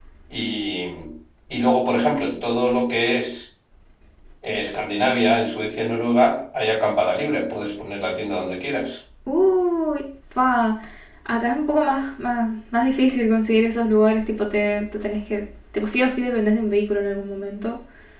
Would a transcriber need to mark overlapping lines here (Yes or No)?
No